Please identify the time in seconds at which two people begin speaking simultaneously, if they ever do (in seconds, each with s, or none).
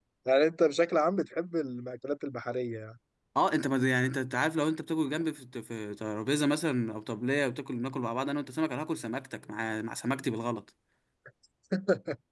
none